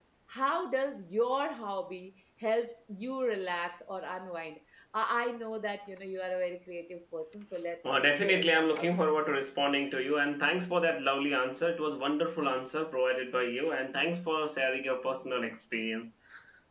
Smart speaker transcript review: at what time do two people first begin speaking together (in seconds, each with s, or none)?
7.8 s